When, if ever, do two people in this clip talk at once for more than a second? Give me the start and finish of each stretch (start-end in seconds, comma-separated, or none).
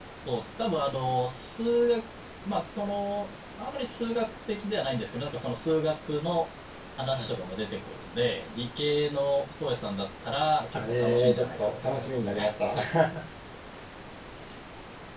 10.7-12.5